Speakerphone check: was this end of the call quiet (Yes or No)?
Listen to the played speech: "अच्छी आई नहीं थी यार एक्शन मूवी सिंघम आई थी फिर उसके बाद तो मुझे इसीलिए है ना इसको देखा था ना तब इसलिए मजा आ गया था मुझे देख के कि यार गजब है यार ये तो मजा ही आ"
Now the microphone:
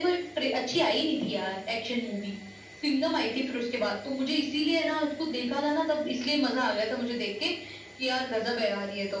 Yes